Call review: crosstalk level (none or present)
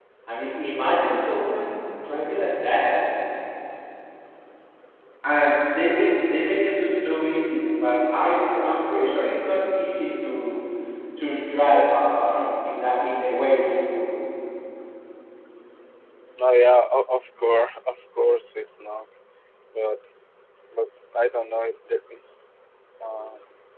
none